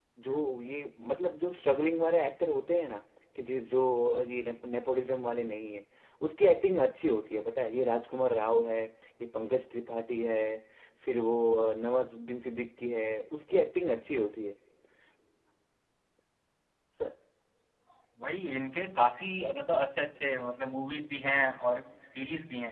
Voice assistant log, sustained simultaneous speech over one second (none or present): none